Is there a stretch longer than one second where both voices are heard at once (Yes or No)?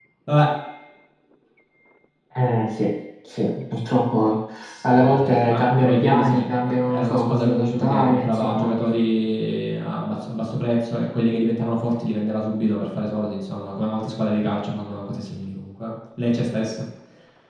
Yes